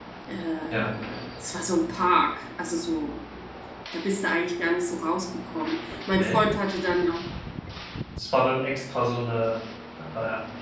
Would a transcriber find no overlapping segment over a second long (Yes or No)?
Yes